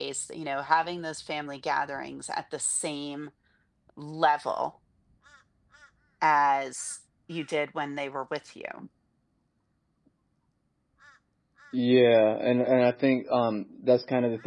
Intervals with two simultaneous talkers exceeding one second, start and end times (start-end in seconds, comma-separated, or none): none